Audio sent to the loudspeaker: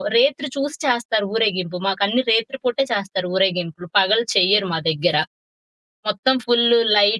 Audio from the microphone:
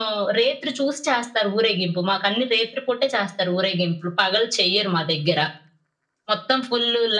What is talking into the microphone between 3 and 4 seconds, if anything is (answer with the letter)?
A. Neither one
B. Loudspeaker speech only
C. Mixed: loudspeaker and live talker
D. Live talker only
B